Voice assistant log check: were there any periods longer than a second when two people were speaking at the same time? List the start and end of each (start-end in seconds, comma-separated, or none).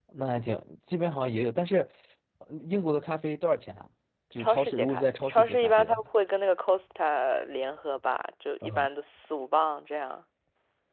4.4-6.0